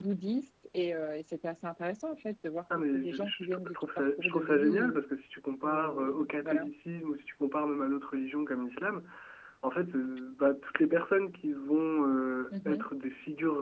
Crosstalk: present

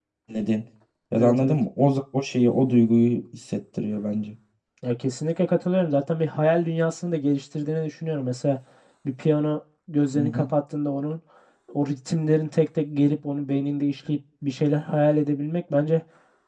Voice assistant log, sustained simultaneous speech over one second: none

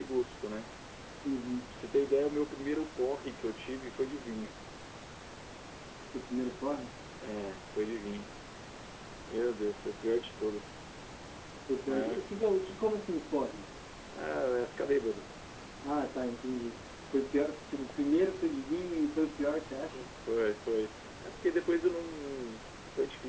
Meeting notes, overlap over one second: none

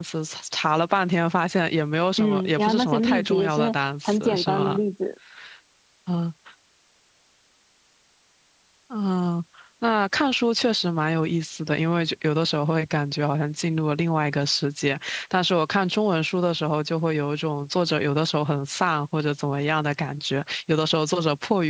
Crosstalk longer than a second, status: present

